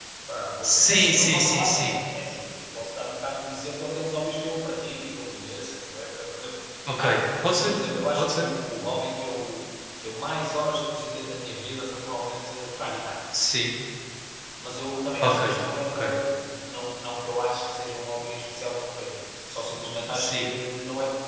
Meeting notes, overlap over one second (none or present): present